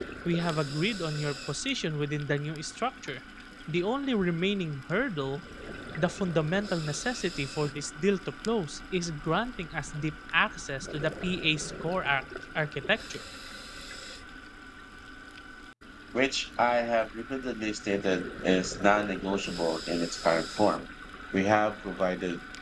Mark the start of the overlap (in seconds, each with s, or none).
none